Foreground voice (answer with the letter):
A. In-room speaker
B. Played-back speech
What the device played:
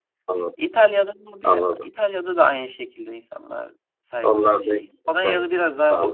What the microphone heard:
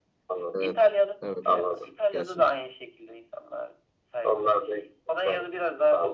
B